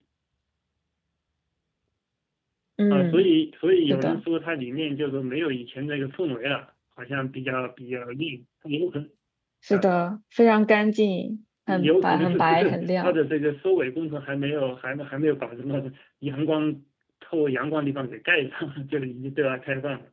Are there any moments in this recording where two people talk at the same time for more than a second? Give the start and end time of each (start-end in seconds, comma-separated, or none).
11.7-13.1